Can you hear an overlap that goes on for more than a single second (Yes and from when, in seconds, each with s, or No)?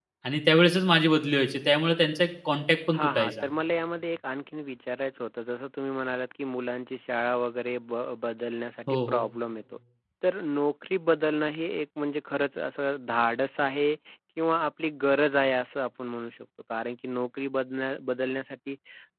No